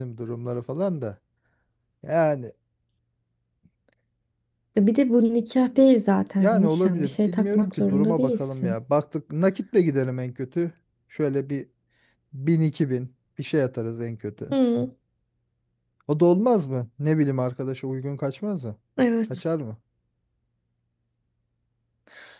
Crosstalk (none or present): present